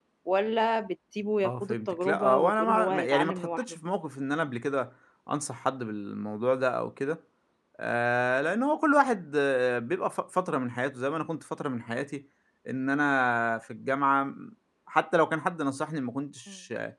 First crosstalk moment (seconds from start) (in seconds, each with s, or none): 1.4 s